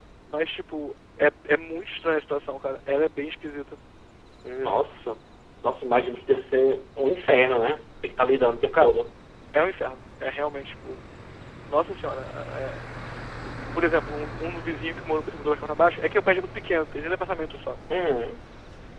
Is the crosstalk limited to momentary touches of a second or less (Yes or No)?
Yes